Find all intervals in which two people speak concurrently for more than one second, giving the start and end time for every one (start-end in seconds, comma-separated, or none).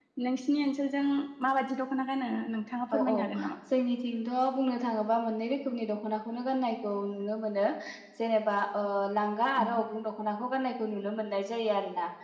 none